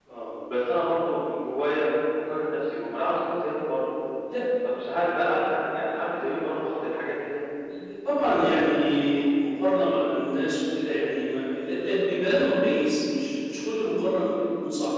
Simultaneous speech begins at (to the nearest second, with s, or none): none